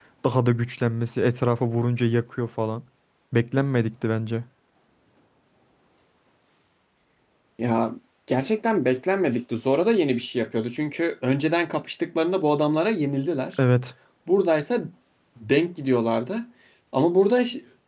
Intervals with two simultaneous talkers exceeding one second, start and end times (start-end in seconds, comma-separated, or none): none